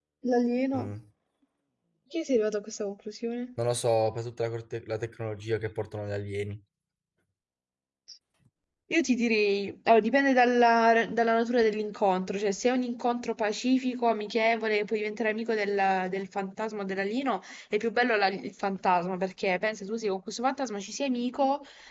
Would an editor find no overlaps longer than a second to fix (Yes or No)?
Yes